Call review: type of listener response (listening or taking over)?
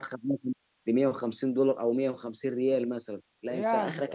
listening